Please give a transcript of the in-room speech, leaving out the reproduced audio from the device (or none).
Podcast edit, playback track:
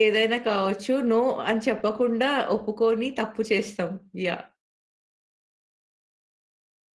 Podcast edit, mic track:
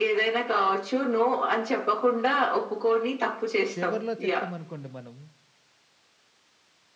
చివర్లో చెప్పామనుకోండి మనం,